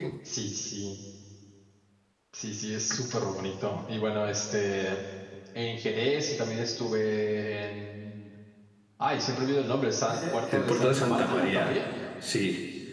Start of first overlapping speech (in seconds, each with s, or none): 10.1 s